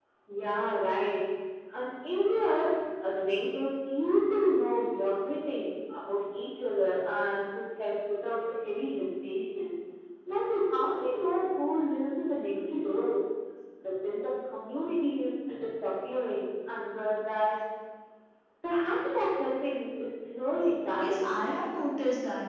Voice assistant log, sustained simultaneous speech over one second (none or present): none